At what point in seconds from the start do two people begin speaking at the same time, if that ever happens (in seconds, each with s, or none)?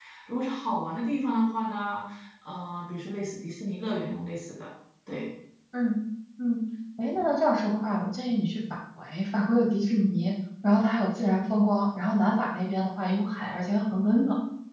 none